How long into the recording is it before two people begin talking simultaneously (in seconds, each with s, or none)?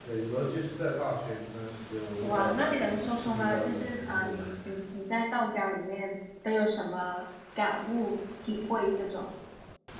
2.2 s